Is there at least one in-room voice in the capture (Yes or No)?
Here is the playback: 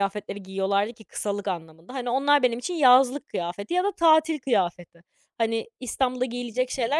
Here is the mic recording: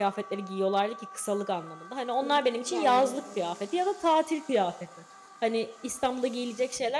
Yes